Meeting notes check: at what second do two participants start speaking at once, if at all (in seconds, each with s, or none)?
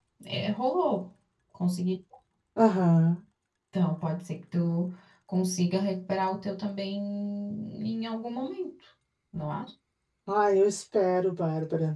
none